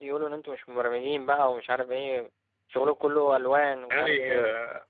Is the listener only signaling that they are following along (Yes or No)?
No